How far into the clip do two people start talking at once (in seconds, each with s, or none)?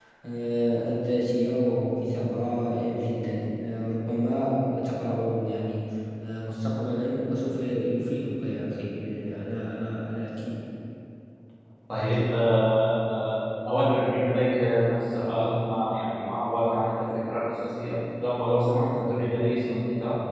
none